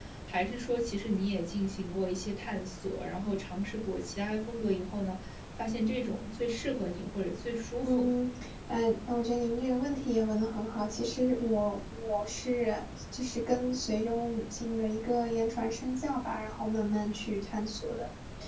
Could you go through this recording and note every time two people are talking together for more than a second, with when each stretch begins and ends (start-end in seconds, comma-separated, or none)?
none